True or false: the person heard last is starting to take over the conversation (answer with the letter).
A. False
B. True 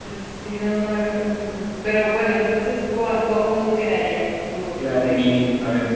B